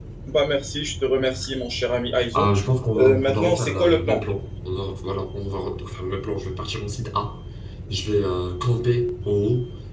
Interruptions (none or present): present